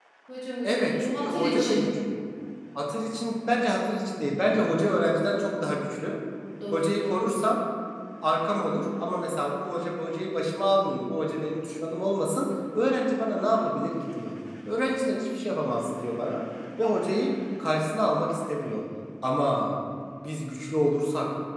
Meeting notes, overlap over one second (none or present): present